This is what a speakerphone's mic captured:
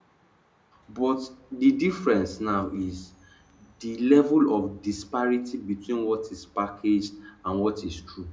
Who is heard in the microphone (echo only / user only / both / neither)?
user only